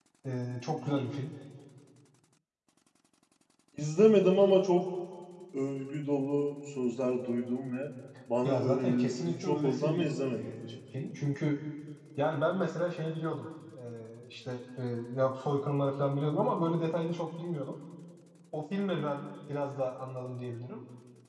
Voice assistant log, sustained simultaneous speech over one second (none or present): present